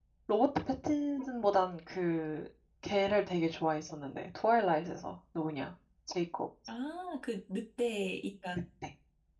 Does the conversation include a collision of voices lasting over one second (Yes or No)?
No